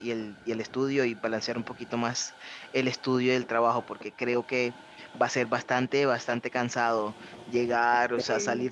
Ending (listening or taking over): listening